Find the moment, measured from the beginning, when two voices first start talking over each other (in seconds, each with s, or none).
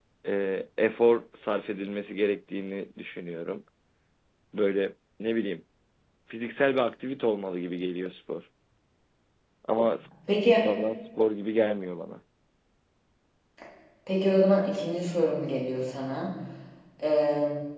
none